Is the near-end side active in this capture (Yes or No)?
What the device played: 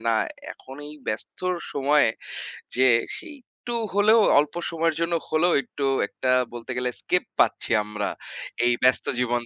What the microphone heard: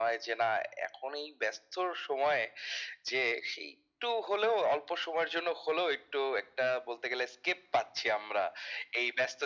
No